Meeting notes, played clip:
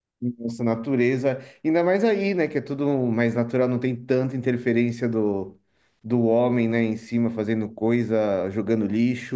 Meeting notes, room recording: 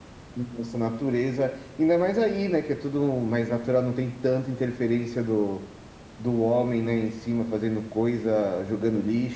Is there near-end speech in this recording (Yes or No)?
No